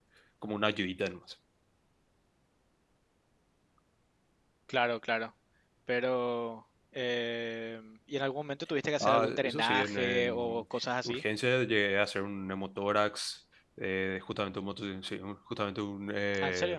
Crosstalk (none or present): present